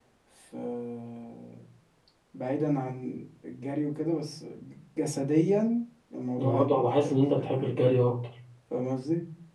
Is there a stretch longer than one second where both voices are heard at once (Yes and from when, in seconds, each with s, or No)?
Yes, from 6.4 s